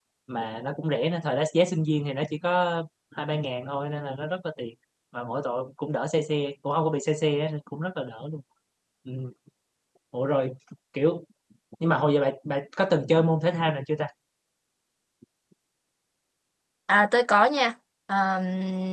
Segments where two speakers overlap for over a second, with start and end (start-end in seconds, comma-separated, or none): none